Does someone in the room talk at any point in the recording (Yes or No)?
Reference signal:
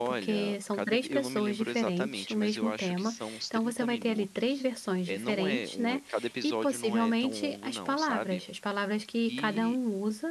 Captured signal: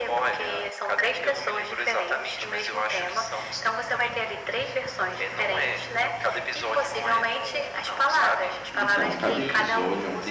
Yes